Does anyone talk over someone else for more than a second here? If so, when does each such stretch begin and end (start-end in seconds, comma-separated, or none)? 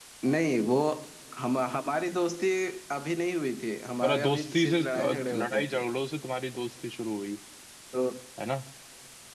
4.0-5.8